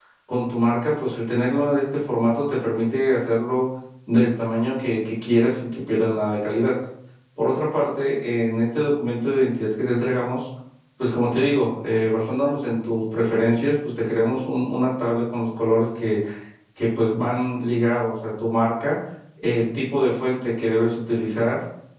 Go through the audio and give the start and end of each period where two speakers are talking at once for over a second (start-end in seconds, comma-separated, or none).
none